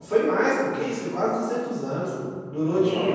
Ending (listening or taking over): listening